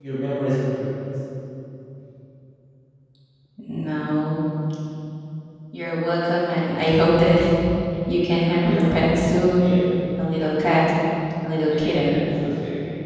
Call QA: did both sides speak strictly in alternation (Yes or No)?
No